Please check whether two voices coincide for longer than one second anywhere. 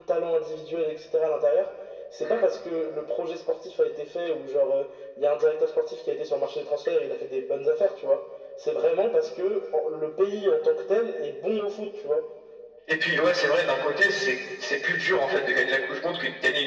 No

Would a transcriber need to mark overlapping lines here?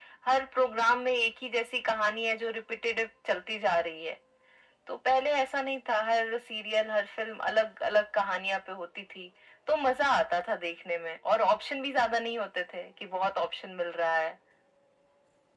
No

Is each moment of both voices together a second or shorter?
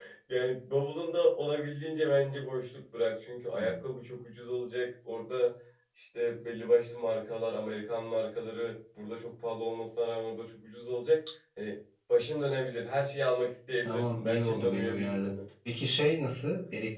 No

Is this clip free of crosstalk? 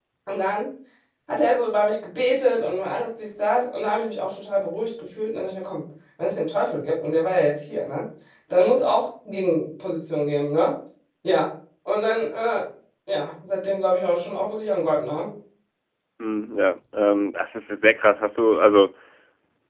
Yes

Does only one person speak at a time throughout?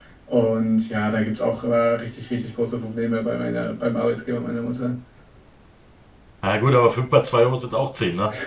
Yes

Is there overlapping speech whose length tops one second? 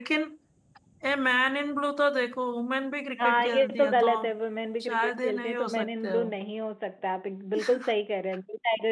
Yes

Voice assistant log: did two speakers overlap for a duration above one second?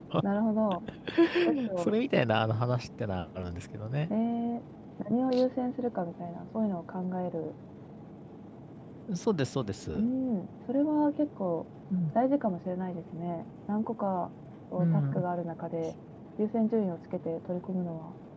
No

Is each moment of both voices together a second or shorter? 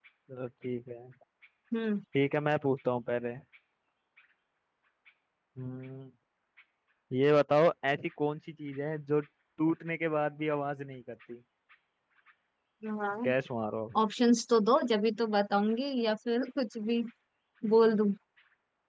Yes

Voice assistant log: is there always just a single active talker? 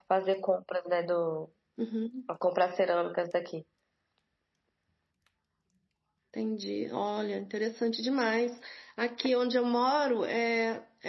Yes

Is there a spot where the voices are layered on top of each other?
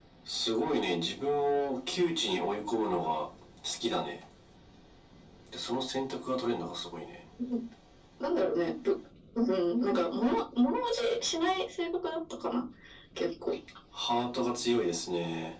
No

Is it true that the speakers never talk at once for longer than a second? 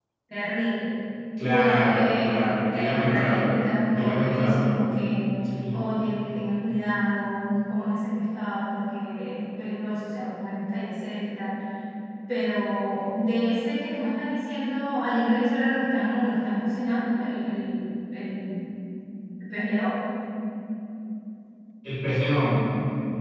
No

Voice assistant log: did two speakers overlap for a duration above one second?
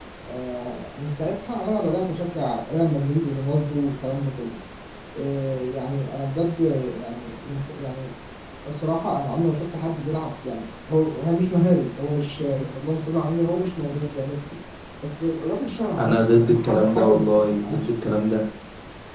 Yes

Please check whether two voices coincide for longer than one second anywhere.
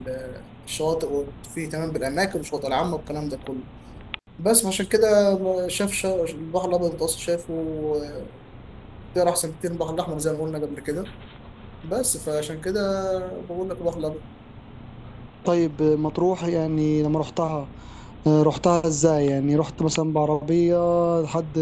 No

